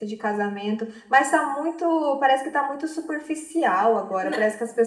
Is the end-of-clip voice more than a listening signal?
No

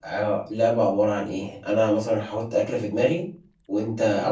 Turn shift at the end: No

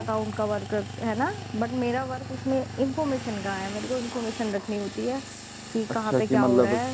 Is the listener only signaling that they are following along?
No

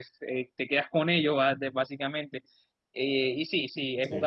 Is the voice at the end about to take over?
No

